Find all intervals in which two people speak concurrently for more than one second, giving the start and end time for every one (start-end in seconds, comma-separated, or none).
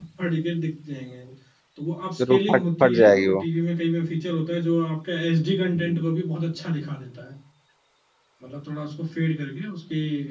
2.2-3.4